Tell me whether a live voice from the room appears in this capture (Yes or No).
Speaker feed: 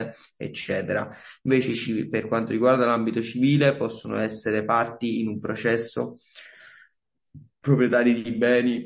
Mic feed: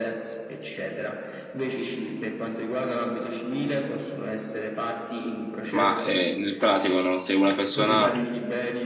Yes